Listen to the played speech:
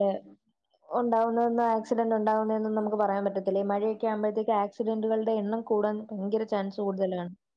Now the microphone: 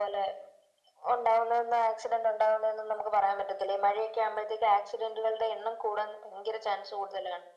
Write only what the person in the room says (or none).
none